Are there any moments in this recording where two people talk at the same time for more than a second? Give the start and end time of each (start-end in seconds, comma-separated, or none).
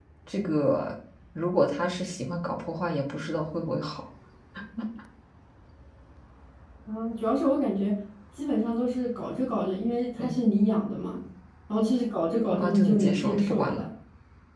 12.5-13.8